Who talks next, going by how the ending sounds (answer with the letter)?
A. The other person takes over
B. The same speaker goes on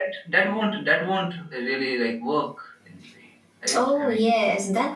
A